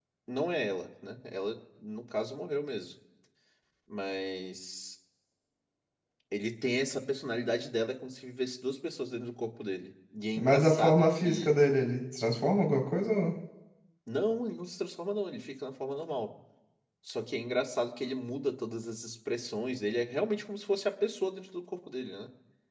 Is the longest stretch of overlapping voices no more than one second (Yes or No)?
No